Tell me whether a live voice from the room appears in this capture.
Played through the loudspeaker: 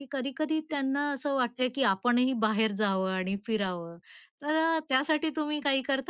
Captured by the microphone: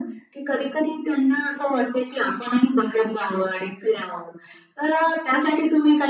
No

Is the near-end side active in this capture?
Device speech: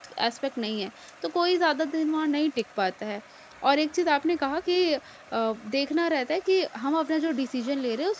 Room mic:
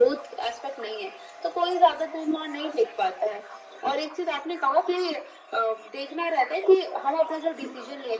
No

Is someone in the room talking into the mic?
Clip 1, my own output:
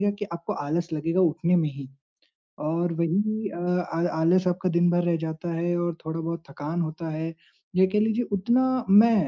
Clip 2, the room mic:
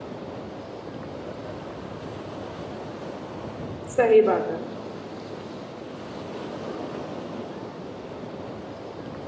Yes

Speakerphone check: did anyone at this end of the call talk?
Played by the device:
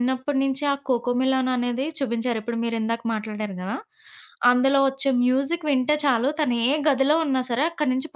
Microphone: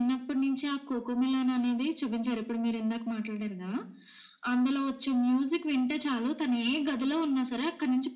No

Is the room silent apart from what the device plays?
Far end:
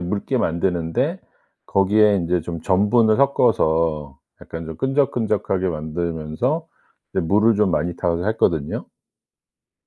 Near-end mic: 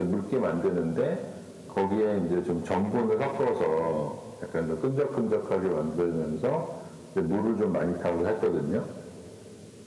Yes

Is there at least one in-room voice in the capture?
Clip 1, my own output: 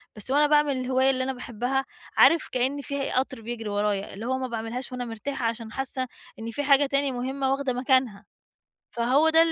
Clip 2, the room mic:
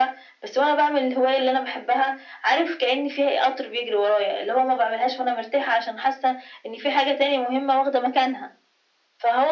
No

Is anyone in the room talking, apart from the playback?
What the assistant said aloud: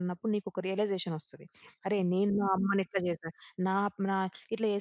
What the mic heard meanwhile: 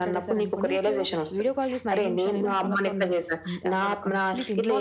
Yes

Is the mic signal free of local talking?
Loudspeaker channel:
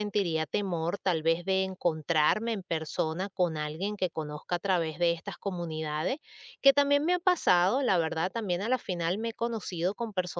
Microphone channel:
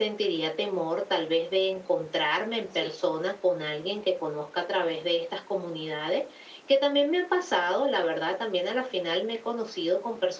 No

